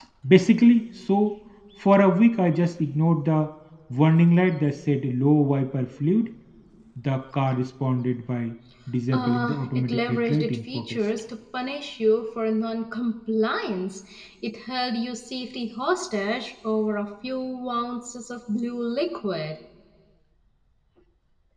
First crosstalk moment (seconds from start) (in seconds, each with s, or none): 9.1 s